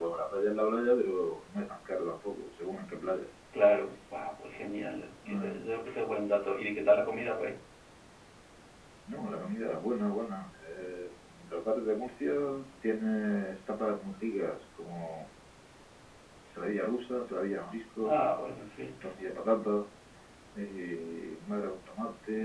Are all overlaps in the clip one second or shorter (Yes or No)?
Yes